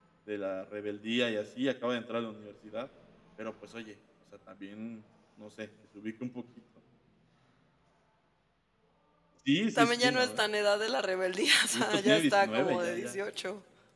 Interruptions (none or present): present